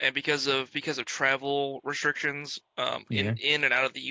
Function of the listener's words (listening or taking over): listening